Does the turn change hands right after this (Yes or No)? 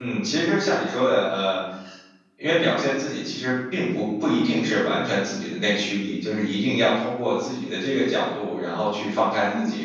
No